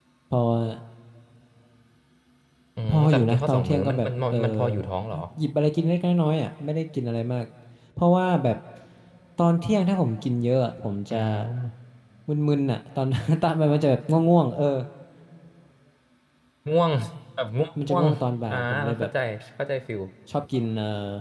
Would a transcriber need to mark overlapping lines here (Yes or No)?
Yes